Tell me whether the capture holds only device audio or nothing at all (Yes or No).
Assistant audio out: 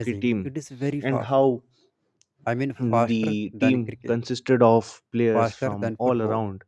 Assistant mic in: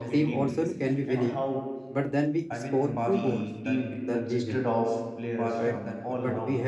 No